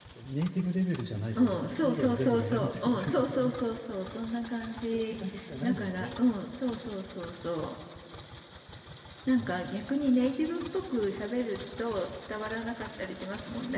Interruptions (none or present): present